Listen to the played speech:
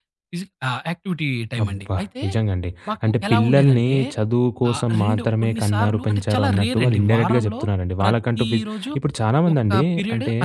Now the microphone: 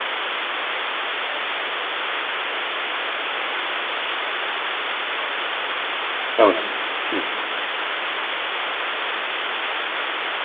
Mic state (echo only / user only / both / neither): user only